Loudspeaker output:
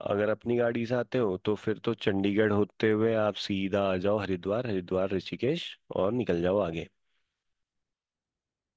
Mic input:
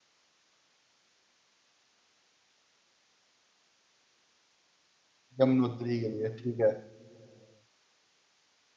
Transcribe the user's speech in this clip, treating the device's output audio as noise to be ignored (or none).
यमुनोत्री के लिए ठीक है